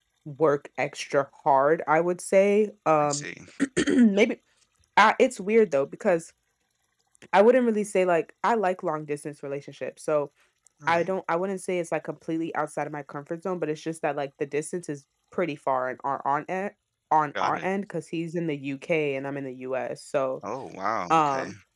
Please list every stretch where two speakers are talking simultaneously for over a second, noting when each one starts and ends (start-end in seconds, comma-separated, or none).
none